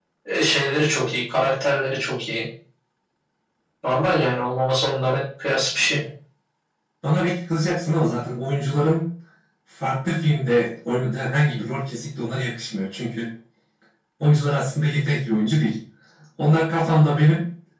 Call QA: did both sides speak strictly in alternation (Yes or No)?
Yes